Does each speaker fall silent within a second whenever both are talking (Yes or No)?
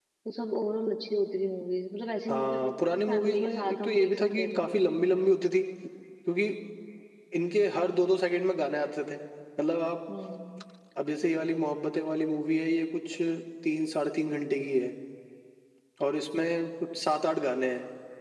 No